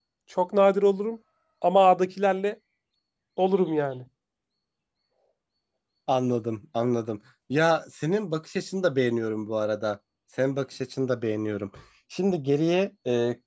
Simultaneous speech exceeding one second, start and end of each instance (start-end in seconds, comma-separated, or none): none